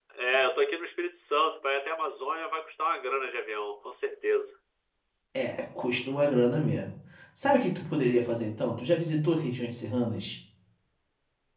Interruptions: none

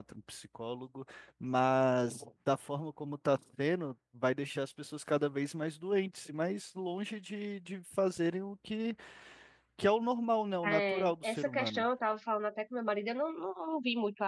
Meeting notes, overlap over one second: present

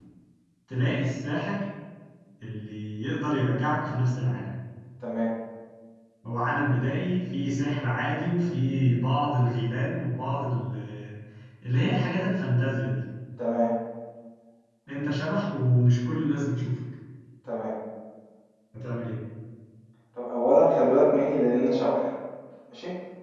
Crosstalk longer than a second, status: none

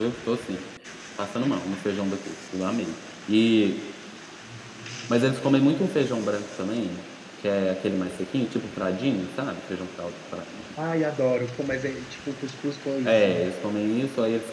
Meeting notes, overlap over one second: none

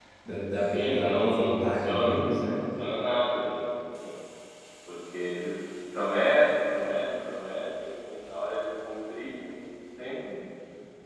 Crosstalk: present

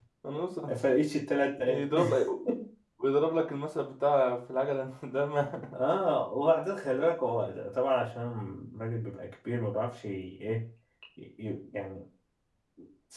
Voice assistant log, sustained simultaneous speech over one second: none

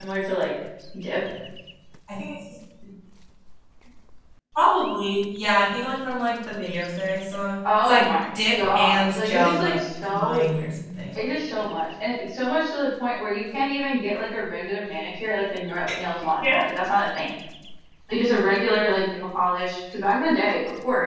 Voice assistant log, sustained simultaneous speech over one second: present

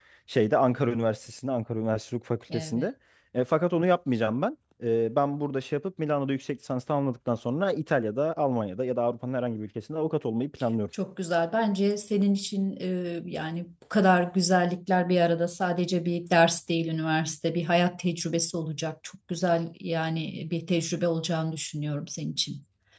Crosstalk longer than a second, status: none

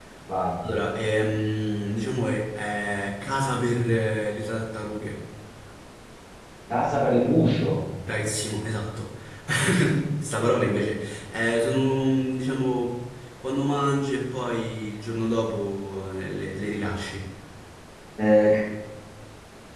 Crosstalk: none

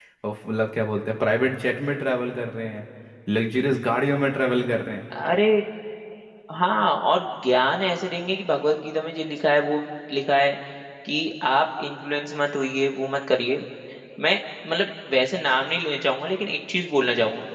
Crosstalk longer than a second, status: none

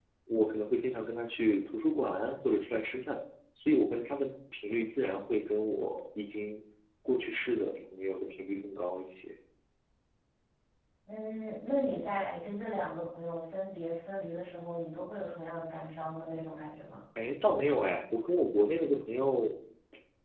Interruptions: none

